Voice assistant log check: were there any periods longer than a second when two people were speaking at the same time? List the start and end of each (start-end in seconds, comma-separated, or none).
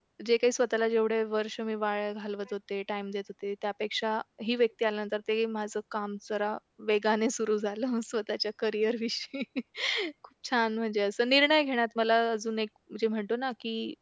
none